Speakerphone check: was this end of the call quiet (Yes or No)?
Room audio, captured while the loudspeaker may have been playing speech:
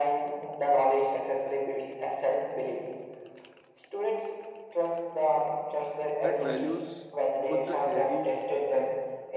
No